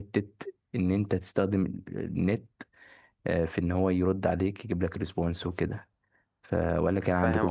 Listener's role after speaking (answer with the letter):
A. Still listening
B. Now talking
B